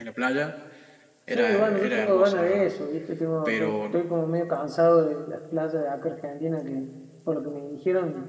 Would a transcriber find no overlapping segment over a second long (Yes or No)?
No